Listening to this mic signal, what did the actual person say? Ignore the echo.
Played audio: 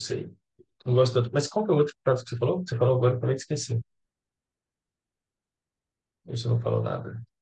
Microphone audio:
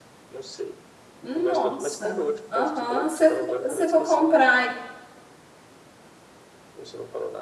Nossa. Aham. Se você for comprar

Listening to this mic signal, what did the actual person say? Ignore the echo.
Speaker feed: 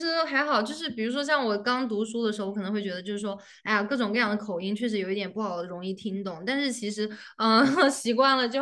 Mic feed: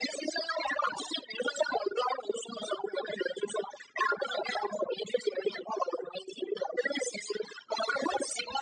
none

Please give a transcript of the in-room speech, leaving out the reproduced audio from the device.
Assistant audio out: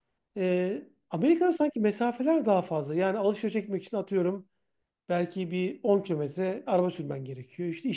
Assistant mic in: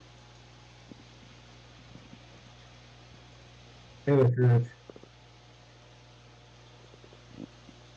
Evet. Evet.

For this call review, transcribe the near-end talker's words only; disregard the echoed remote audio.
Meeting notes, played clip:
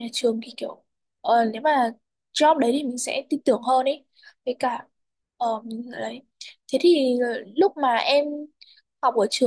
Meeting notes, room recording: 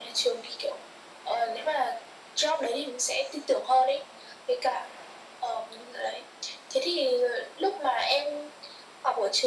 none

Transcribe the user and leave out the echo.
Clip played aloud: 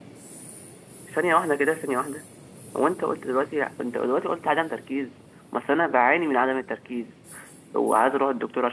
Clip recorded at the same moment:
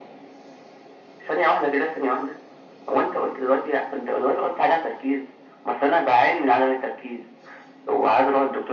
none

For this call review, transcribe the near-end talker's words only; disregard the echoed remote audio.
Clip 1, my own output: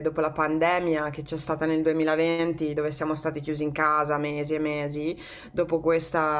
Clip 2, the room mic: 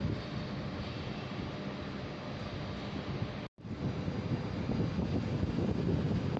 none

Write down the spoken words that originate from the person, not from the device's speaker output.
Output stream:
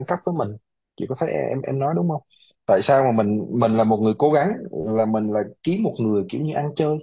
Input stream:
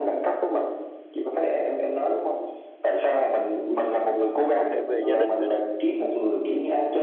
có thể về gia đình nữa nè

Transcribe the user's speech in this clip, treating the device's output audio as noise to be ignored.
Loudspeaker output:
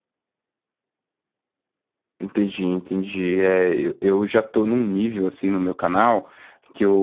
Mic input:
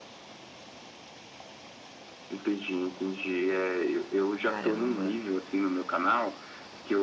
Caramba.

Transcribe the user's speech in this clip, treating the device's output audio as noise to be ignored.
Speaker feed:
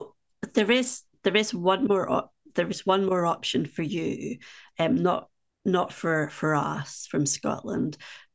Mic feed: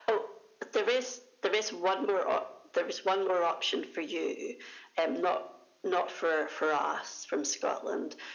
none

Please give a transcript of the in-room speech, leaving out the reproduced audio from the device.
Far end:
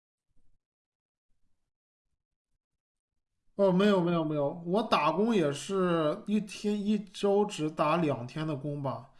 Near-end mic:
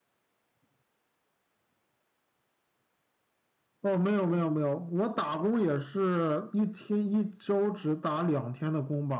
none

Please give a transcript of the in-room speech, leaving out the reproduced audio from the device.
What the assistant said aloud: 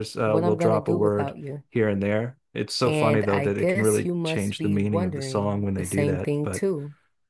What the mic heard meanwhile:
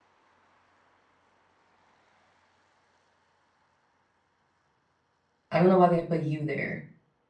I don't know why they put you there.

